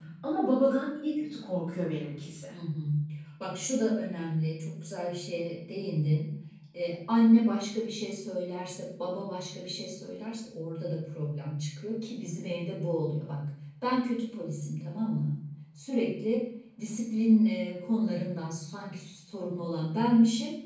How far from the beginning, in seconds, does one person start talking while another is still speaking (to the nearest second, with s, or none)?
none